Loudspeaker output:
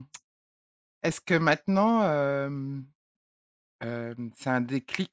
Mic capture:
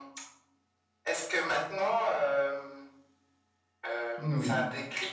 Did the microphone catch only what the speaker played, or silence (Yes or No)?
No